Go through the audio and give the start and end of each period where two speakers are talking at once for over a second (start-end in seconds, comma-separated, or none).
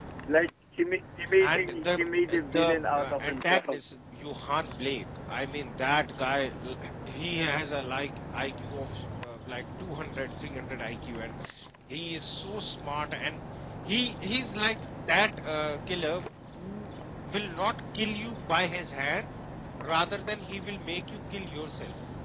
1.4-3.8